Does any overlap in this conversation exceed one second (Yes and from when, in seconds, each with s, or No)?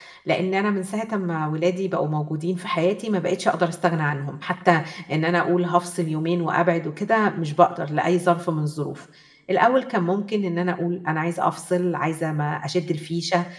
No